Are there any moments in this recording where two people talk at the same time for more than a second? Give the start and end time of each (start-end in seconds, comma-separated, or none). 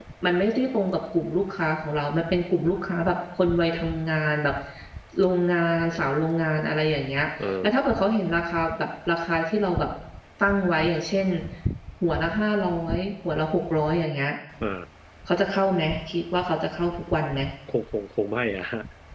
none